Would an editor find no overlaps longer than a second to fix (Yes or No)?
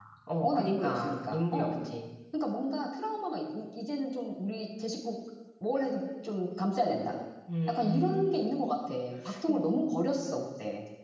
No